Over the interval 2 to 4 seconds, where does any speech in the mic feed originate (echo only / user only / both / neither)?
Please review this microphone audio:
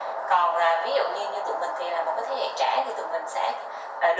echo only